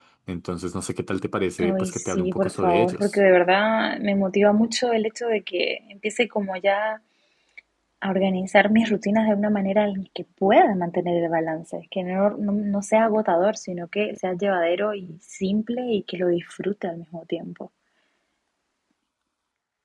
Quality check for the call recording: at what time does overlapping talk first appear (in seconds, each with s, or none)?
1.6 s